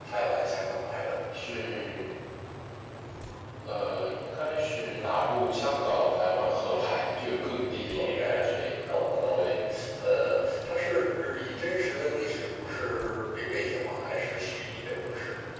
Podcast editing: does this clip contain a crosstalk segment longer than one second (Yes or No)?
No